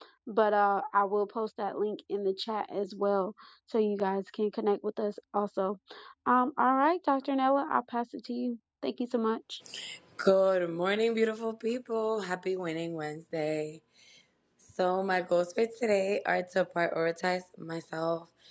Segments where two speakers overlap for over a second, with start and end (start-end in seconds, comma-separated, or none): none